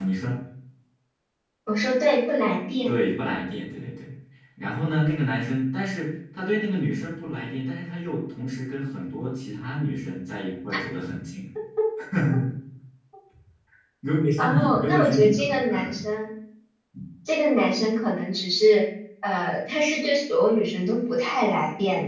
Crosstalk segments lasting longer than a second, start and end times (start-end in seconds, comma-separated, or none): 14.4-16.0